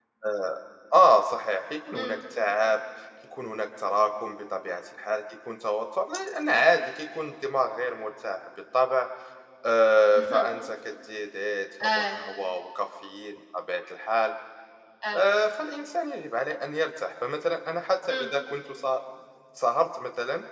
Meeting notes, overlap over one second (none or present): none